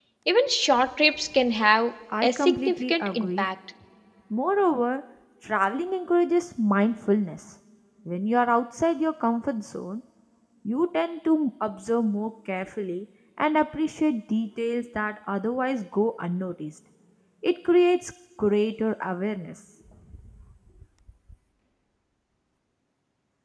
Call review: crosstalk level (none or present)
present